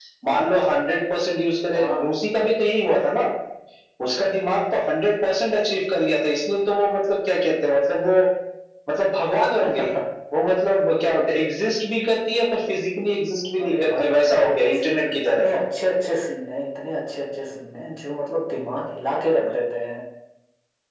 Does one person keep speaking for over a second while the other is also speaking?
Yes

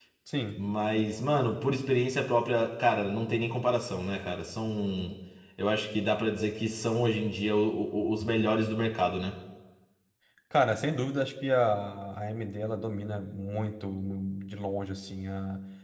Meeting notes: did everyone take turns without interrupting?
Yes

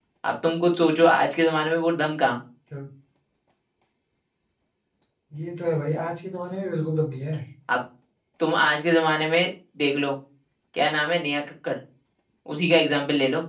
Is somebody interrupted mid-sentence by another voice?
No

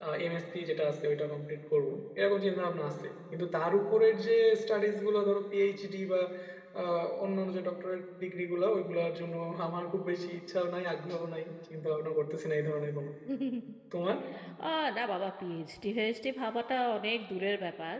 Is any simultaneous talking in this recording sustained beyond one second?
No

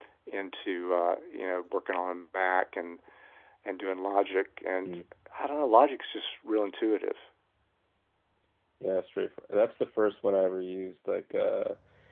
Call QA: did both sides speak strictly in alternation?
Yes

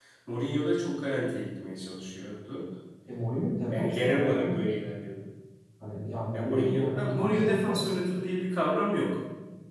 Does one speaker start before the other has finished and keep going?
Yes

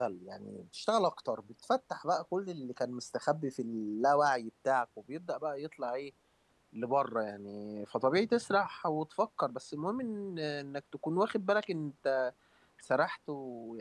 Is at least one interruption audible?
No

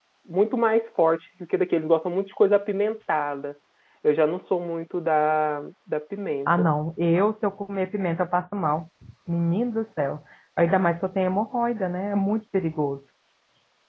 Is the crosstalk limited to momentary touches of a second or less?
Yes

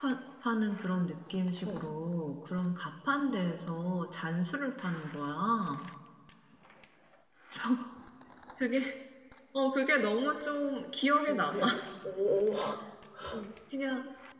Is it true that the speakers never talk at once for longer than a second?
Yes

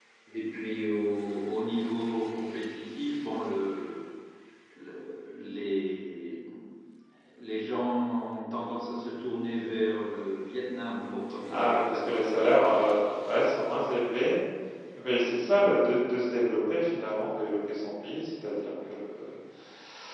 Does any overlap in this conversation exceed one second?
Yes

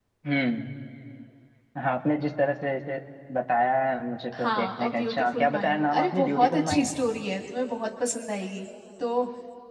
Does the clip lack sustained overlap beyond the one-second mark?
No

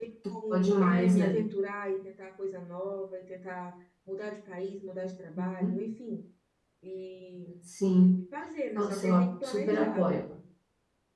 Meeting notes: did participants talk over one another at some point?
Yes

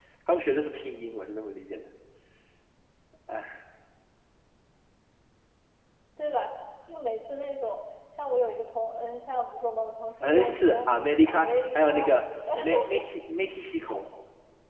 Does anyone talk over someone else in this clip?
Yes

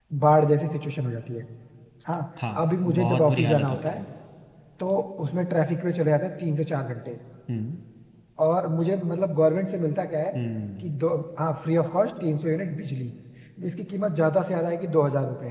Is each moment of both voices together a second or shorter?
No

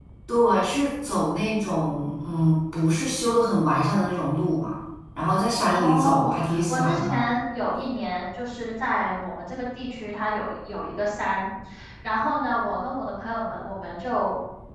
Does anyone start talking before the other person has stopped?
Yes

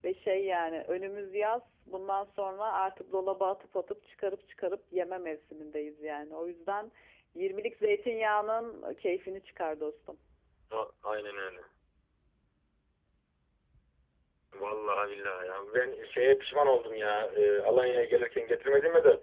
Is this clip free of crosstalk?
Yes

